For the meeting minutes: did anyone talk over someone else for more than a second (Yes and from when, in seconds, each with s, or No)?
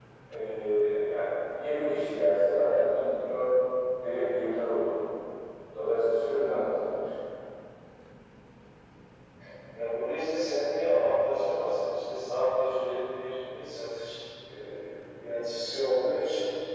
No